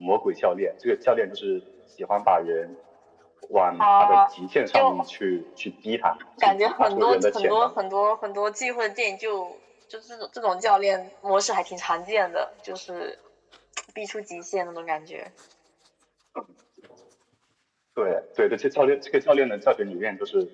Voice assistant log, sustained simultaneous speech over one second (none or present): present